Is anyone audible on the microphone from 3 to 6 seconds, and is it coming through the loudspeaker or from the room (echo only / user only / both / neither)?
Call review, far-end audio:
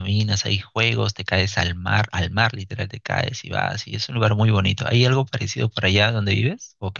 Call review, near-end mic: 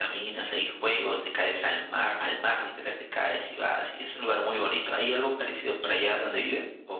echo only